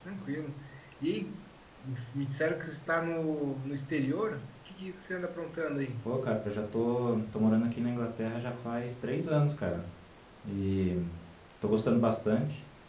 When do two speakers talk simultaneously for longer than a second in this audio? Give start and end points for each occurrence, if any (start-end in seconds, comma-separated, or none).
none